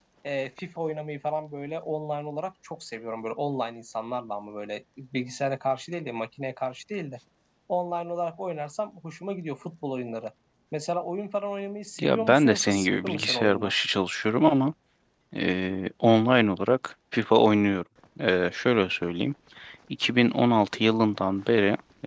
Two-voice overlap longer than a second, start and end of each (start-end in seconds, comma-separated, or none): 12.0-13.7